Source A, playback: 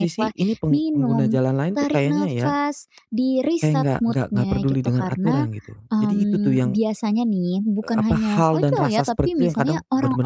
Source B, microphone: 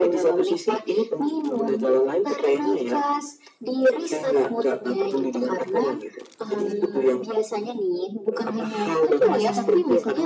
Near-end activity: present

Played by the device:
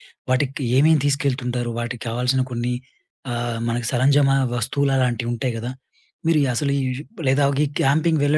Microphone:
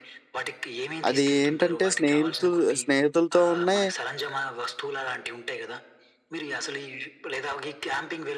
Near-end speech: present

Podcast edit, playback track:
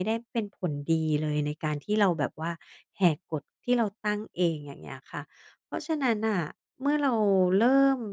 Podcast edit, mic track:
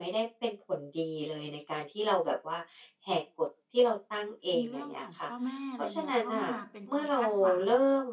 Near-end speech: present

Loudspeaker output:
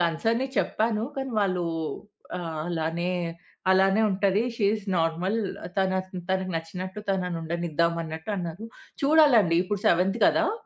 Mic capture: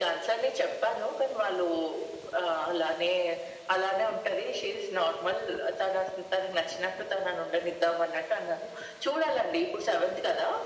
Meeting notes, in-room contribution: none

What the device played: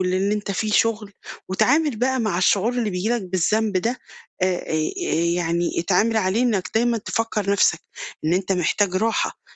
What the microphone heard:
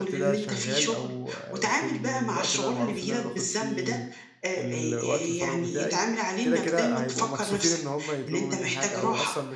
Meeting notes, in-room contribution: present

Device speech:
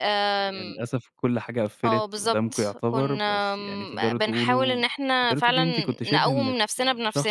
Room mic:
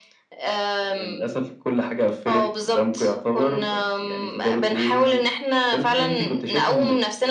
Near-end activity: none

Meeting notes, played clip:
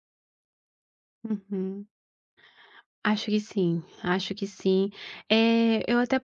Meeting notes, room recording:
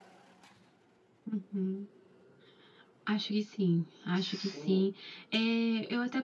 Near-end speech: present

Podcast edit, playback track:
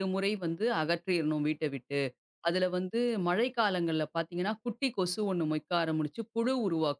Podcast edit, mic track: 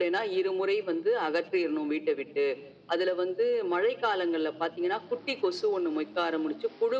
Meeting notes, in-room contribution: none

